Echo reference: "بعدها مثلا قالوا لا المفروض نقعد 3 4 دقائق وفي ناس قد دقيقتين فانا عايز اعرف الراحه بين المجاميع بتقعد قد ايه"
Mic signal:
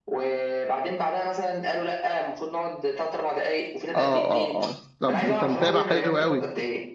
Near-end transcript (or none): اه اه اه طب ده انت متابع حلو قوي